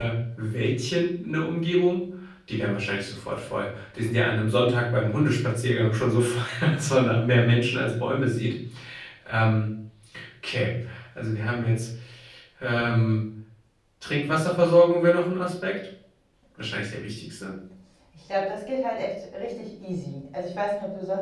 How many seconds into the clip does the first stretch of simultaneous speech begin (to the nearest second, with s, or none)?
none